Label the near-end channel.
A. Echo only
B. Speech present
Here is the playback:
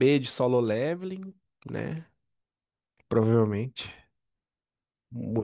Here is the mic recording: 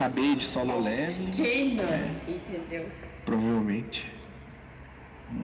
B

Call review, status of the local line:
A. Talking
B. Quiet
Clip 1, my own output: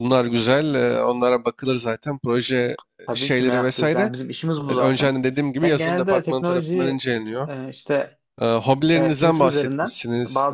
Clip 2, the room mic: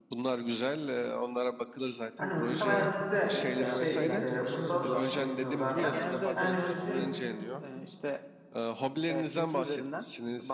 A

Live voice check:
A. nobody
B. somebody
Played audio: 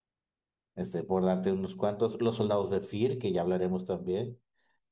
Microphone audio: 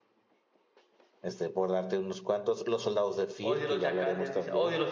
B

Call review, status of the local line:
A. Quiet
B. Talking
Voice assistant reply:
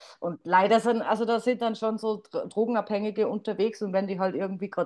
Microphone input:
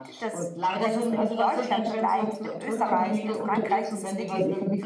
B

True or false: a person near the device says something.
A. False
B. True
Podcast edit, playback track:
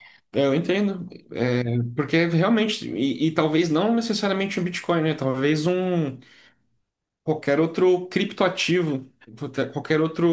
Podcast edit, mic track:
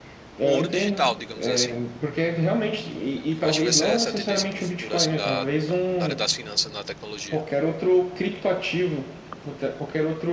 B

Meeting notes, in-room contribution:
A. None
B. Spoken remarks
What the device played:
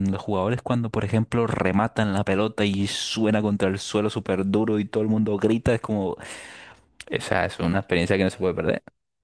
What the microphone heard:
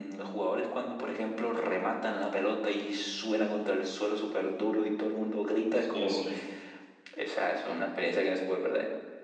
B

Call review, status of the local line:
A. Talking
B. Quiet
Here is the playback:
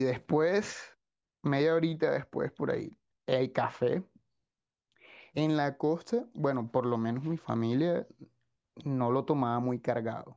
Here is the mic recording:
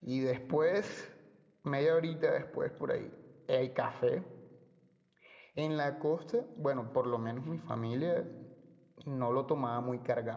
B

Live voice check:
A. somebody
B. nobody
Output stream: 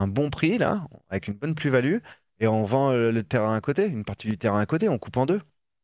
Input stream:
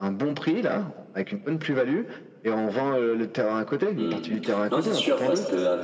A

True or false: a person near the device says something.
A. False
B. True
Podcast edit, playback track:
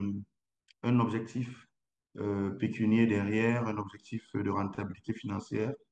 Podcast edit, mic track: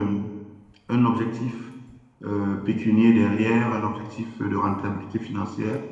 A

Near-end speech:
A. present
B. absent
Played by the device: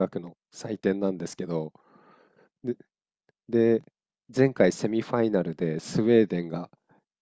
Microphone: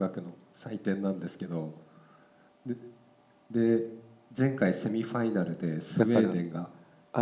A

